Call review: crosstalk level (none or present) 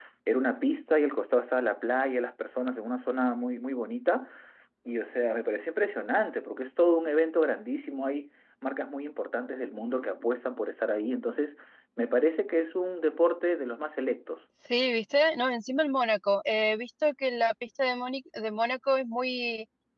none